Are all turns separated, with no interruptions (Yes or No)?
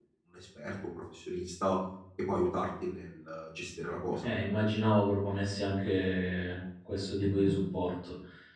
Yes